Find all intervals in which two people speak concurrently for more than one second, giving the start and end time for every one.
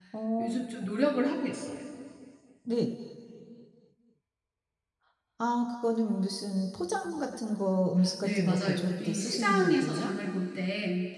8.2-10.1

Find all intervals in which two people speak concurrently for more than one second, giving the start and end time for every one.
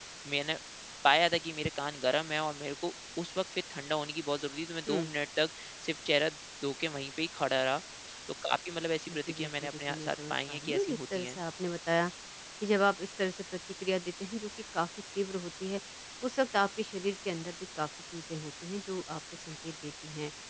9.1-11.4

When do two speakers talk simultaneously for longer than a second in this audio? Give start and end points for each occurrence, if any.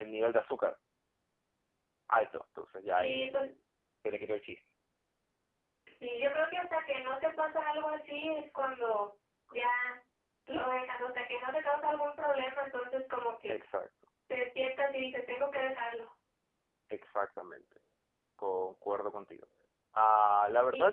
none

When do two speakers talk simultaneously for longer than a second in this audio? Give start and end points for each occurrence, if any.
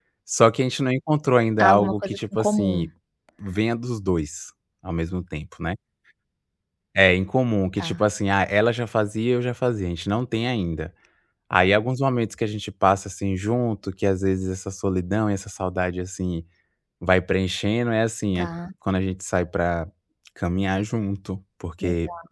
1.6-2.9

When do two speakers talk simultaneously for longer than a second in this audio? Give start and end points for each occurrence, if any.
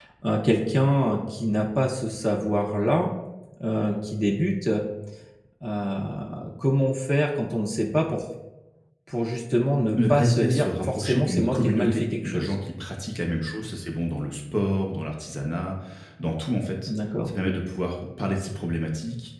10.0-12.6

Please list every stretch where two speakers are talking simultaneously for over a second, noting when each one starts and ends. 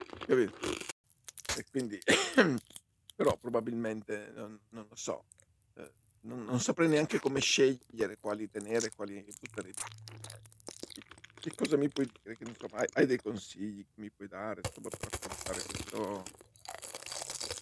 none

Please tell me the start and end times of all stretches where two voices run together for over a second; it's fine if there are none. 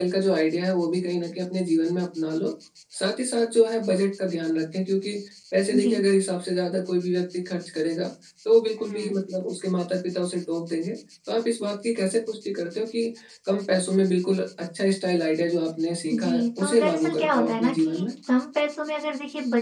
16.1-18.1

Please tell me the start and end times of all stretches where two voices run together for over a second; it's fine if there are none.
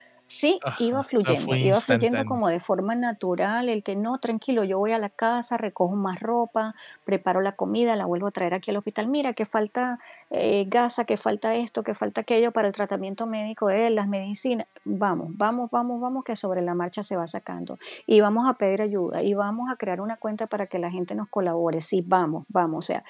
0.8-2.4

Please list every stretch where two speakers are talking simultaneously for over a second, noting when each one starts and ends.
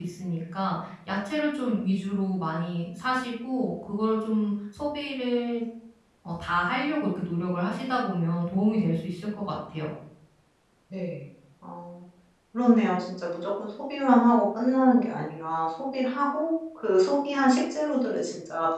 none

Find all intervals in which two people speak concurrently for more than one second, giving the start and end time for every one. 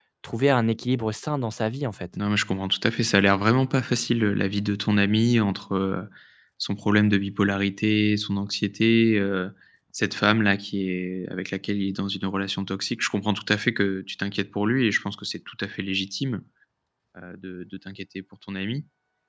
none

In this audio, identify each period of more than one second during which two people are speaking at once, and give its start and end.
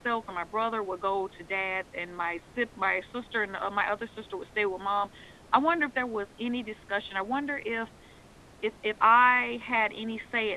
none

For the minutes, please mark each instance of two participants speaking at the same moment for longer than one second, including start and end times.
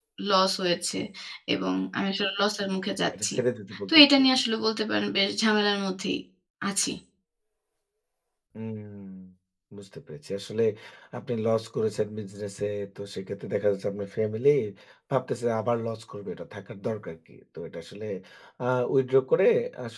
none

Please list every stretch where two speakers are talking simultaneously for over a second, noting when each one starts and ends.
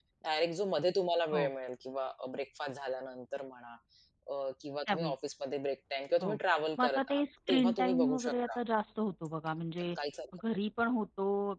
6.8-8.6

